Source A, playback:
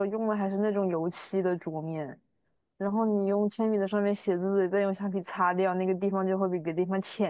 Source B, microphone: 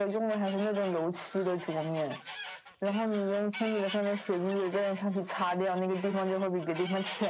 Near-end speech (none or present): none